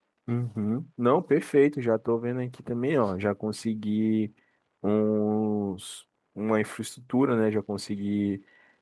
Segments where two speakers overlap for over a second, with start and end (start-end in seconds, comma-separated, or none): none